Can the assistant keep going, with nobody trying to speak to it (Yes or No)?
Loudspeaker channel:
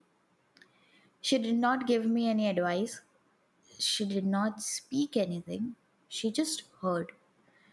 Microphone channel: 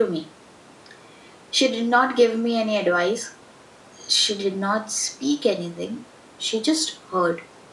Yes